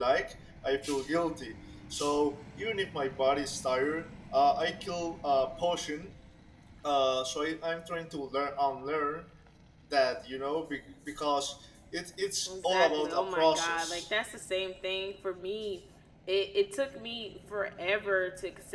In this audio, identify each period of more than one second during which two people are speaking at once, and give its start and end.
12.5-14.1

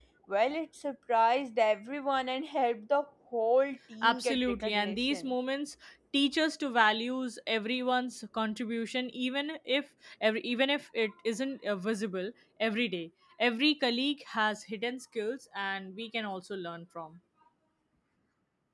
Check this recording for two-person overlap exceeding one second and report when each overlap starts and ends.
4.0-5.3

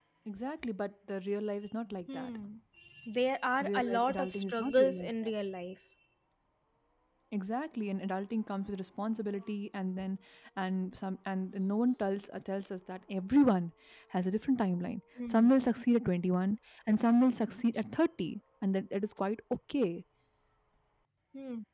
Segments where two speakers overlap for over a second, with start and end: 3.6-5.3

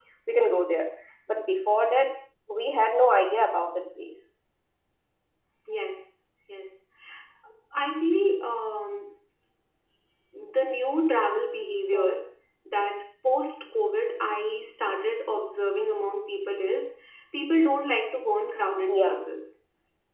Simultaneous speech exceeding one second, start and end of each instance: none

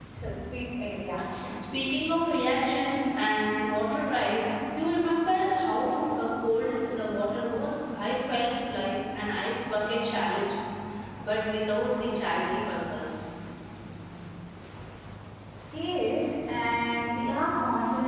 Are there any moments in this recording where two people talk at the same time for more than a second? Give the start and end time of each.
none

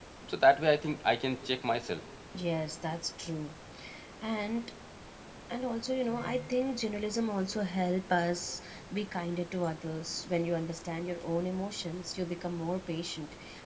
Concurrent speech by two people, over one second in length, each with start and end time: none

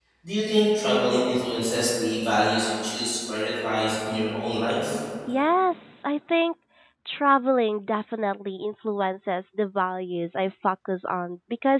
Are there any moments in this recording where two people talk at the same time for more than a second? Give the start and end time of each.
none

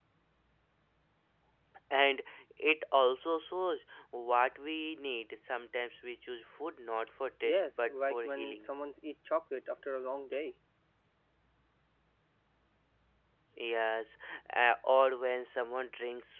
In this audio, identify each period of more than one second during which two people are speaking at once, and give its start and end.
7.4-8.7

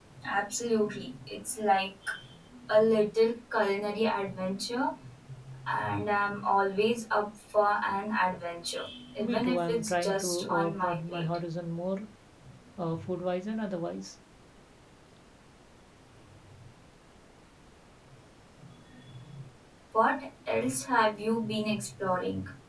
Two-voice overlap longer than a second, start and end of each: 9.2-11.4

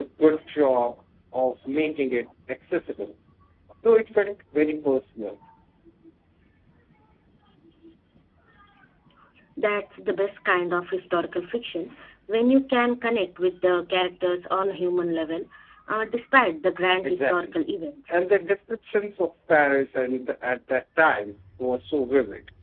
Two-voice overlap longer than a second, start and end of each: none

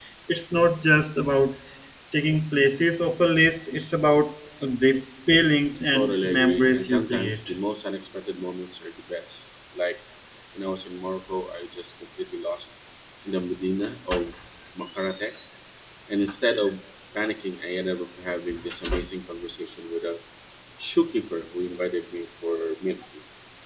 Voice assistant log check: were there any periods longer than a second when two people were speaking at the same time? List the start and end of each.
5.9-7.5

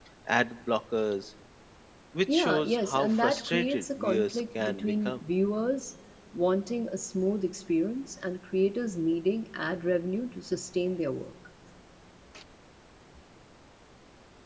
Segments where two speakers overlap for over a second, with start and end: 2.3-5.3

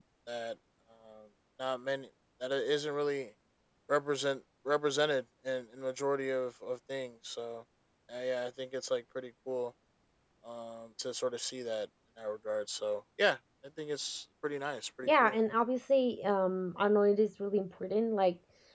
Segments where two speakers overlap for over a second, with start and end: none

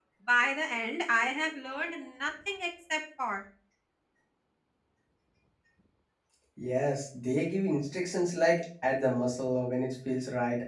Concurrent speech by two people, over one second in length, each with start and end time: none

